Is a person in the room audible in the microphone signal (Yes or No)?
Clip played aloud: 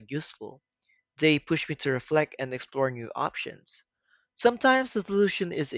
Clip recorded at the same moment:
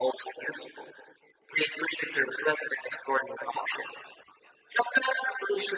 No